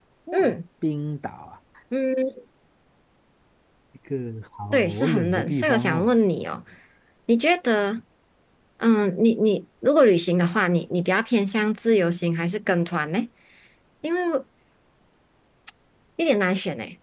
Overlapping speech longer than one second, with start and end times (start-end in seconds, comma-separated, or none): 4.7-6.1